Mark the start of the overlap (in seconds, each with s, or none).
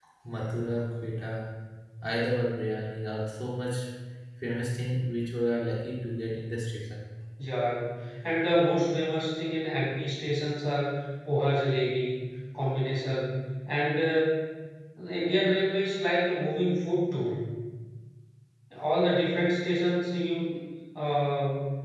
none